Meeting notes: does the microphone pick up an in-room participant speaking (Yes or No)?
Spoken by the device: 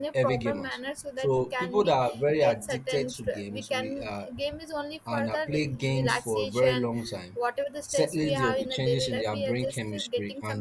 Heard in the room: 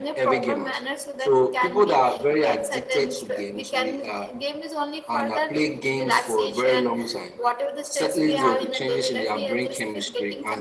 No